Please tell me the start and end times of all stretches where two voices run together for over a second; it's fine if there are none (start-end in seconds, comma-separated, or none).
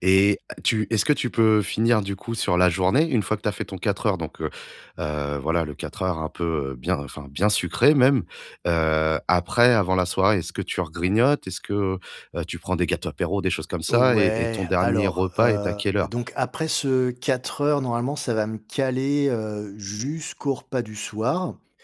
13.9-16.1